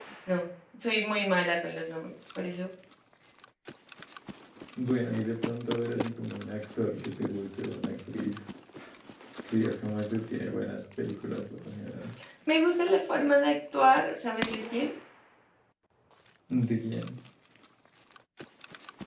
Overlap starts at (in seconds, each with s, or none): none